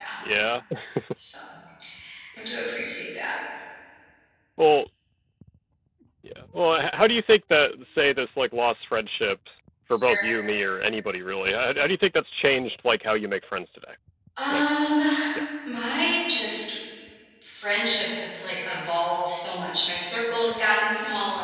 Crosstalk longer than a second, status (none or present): none